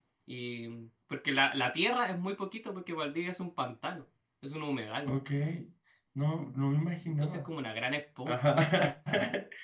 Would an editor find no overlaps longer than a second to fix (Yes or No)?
Yes